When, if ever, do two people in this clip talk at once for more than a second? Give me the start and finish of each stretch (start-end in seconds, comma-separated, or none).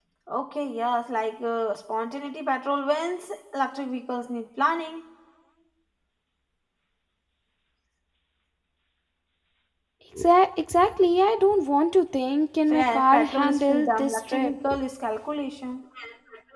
12.7-14.5